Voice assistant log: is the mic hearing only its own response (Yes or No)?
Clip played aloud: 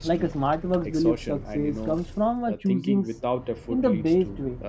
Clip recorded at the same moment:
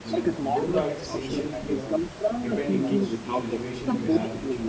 No